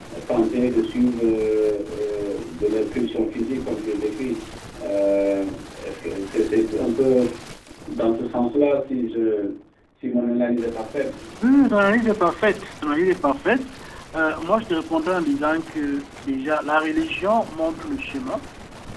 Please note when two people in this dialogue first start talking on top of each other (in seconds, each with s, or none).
none